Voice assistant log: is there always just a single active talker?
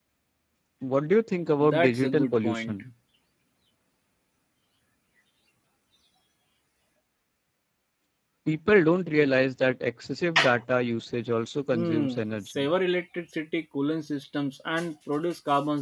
No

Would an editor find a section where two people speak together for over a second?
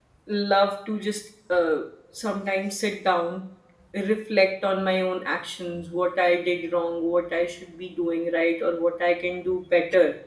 No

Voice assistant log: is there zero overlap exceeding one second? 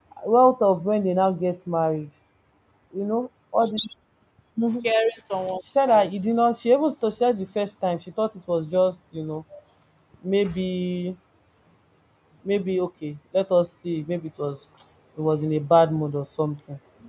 Yes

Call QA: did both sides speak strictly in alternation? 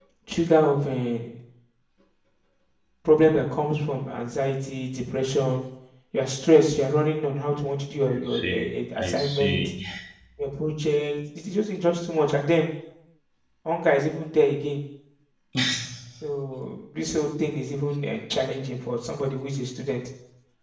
No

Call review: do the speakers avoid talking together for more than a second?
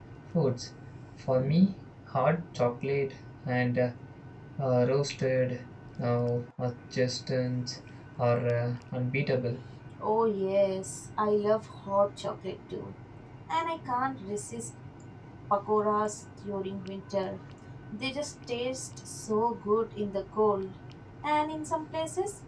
Yes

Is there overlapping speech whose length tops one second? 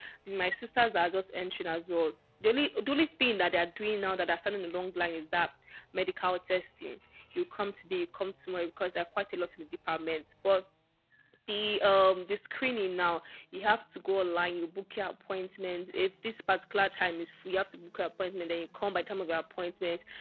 No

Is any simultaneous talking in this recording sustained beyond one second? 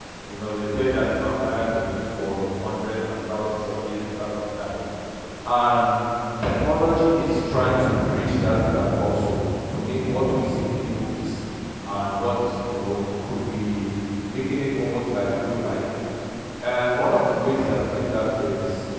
No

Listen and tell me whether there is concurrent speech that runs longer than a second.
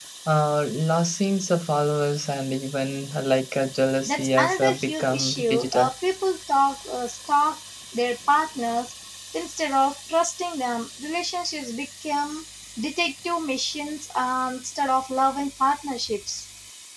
Yes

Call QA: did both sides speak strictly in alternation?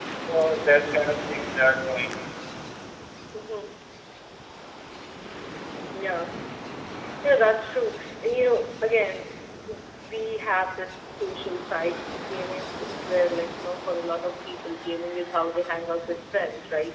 Yes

